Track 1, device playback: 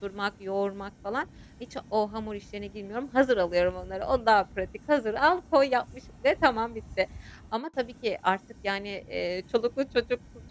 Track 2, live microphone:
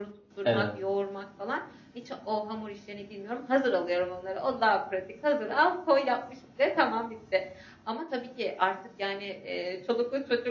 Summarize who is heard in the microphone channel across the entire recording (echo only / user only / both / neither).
both